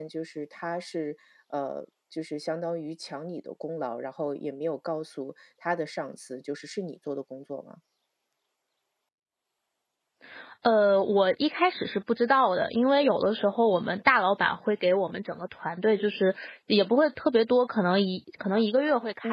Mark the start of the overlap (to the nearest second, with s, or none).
none